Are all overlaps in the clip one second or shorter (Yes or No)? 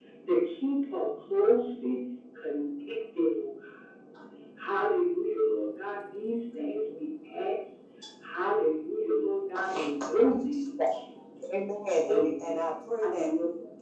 No